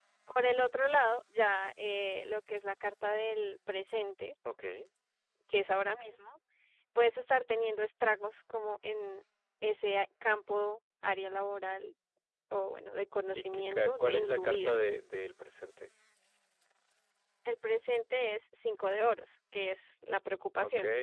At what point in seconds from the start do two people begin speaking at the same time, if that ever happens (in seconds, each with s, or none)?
13.3 s